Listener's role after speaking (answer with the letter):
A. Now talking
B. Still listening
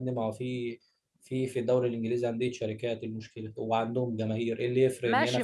A